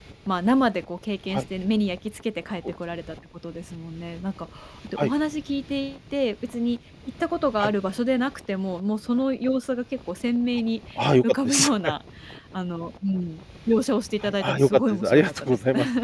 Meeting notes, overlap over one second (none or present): present